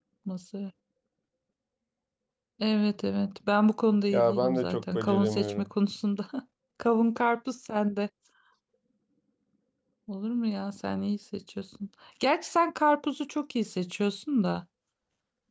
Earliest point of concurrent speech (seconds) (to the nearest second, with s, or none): 4 s